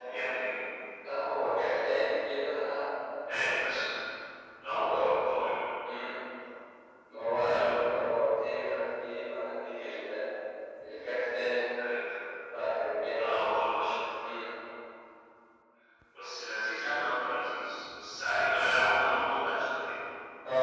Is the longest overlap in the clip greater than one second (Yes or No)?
No